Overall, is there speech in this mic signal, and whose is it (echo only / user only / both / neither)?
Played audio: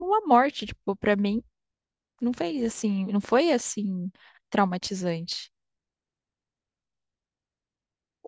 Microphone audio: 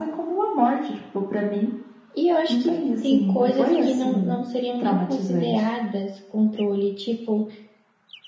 both